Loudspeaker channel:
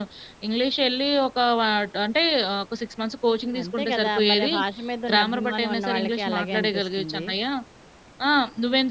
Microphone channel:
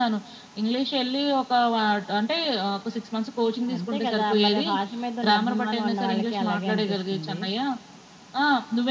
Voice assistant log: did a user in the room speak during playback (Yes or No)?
No